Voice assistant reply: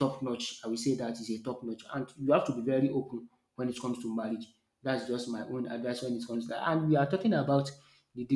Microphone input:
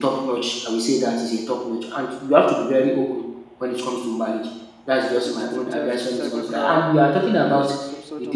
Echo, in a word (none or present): present